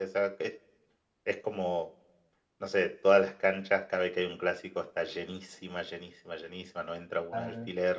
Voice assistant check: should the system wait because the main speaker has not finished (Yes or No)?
Yes